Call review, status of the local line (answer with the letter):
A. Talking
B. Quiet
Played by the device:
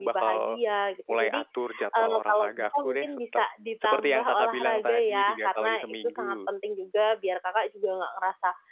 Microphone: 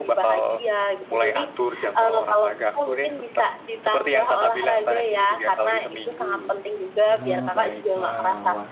A